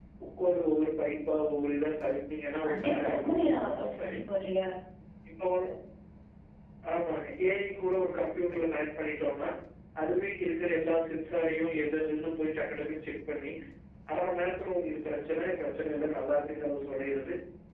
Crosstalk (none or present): present